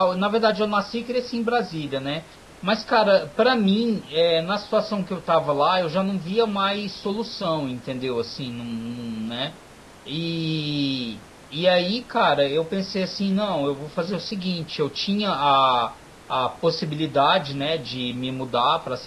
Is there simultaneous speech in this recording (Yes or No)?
No